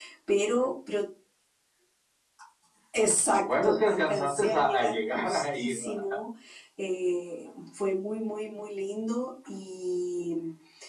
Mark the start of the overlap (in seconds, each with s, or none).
3.3 s